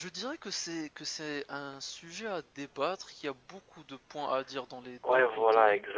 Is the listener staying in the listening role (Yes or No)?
No